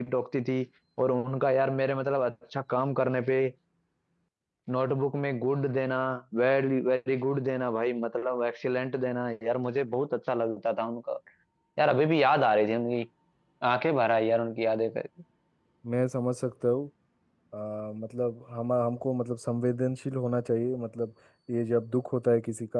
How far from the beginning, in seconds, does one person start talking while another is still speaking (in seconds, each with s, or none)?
none